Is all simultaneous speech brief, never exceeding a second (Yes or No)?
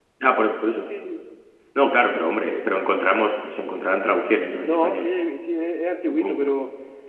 Yes